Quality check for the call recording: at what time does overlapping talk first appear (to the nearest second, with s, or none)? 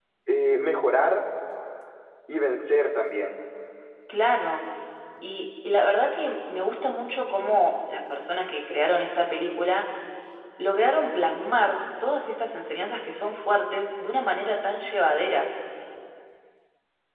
none